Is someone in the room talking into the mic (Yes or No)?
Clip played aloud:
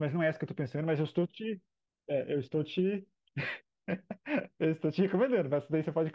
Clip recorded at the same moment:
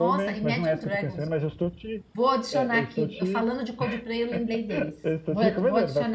Yes